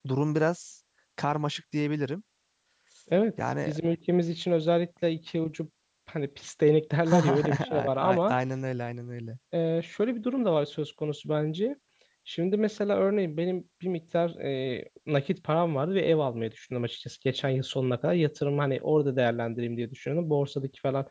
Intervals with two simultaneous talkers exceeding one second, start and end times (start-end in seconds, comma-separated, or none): 7.1-8.3